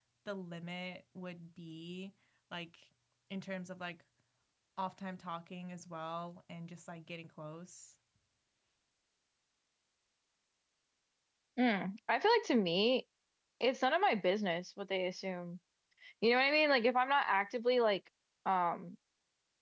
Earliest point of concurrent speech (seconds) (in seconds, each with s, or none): none